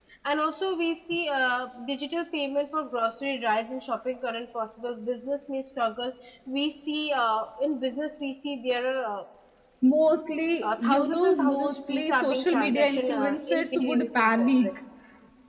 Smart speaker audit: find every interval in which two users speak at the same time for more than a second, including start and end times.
10.6-14.7

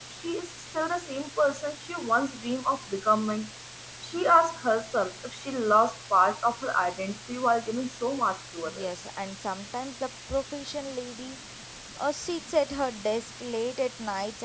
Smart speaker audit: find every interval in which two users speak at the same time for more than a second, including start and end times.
none

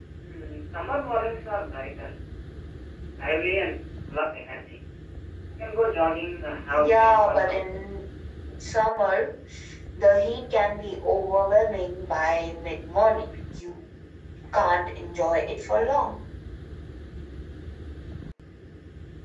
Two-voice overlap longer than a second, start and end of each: 6.8-8.0

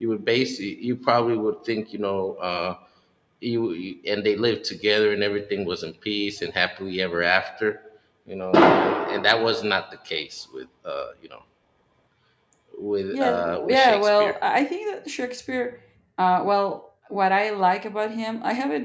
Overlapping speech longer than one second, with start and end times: 13.1-14.3

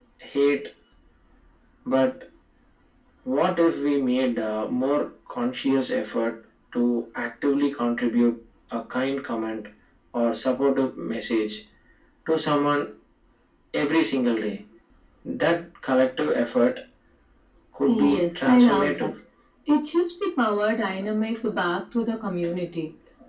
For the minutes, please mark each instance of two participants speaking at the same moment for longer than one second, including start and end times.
17.9-19.1

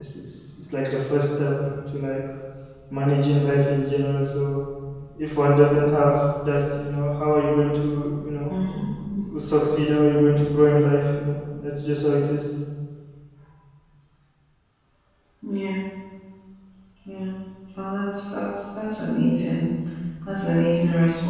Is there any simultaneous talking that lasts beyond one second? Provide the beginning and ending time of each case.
none

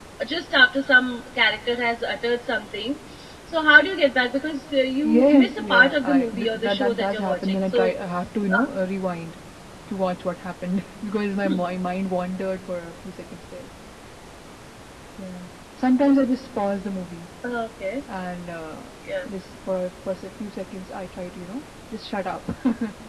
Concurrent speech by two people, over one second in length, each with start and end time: 5.0-7.9

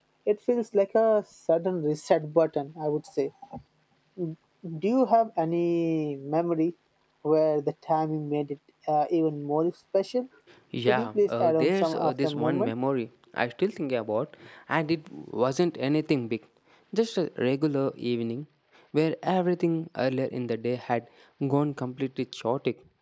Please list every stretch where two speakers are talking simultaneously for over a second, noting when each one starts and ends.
10.9-12.7

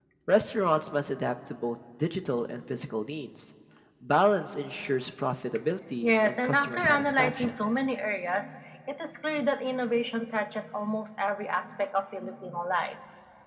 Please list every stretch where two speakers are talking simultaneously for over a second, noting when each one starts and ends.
6.0-7.5

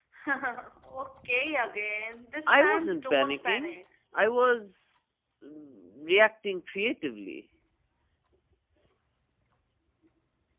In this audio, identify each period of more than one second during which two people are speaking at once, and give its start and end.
2.5-3.8

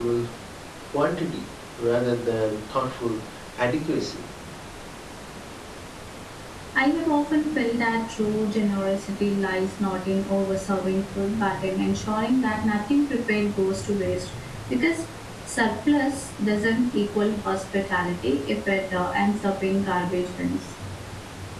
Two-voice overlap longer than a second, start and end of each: none

